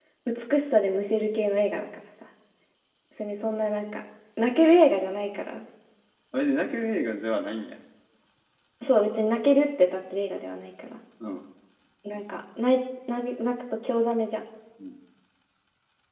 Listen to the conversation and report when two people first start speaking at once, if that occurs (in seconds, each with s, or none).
none